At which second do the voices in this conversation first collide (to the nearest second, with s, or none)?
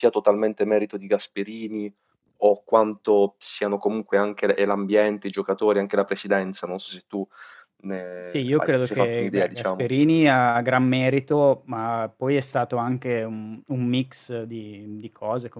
8 s